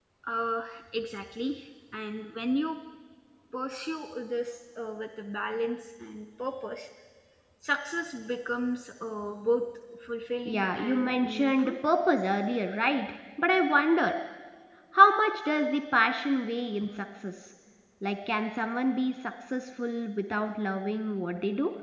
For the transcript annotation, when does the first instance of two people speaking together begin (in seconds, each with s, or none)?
10.4 s